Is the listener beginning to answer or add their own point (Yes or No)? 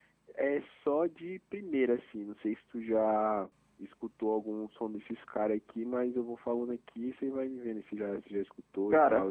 Yes